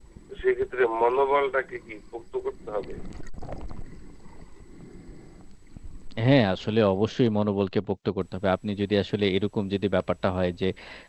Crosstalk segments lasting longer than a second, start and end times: none

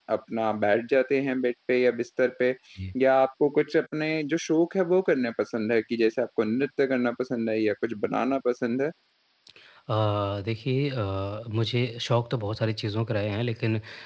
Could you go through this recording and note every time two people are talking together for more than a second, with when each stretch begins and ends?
none

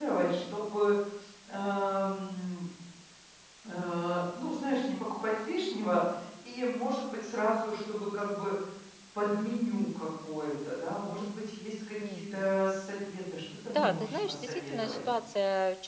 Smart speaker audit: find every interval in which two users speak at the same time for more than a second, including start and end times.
13.7-15.0

